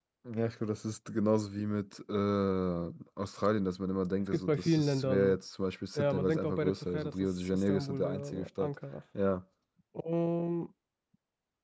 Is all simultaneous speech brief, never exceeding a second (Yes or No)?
No